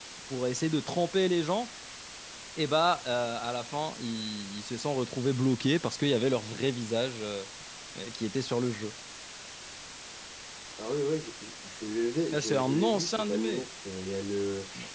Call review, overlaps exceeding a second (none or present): present